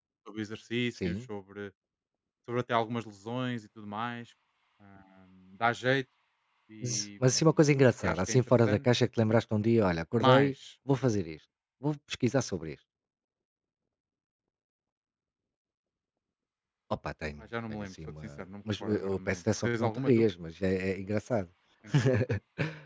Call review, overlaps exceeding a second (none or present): present